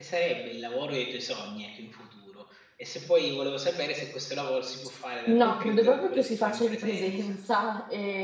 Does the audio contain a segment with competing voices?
Yes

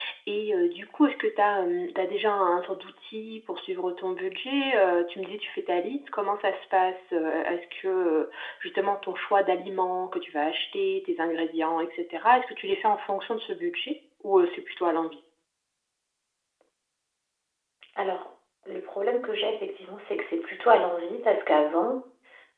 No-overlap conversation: Yes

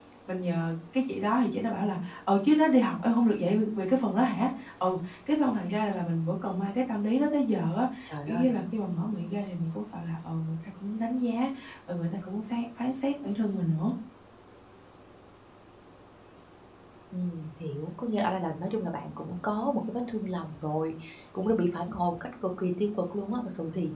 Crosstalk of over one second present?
No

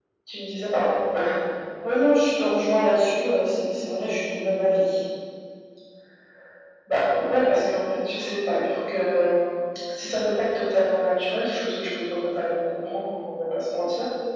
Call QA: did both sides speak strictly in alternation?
Yes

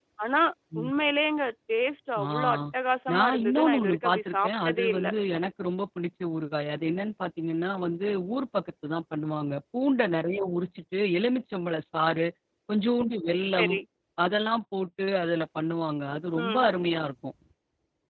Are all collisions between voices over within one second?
No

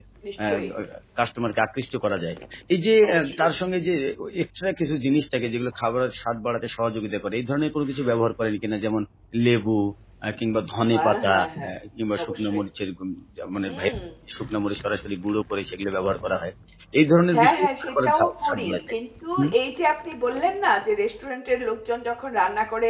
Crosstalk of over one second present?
Yes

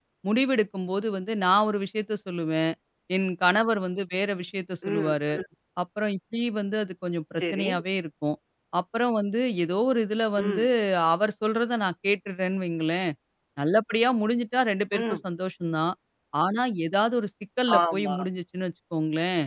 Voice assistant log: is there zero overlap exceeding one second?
Yes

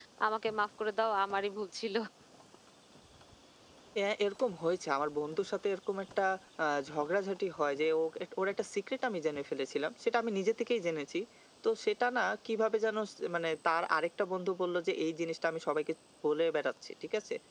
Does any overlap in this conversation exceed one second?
No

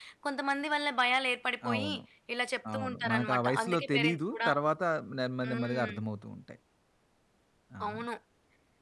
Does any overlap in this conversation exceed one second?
Yes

